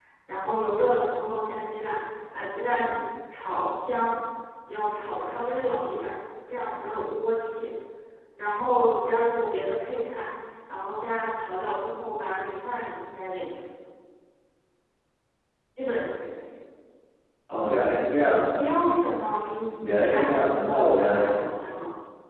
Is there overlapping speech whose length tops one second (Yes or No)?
Yes